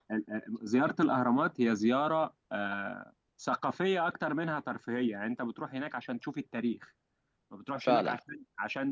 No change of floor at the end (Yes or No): Yes